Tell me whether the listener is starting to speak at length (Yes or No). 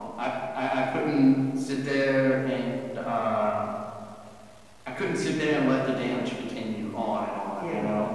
Yes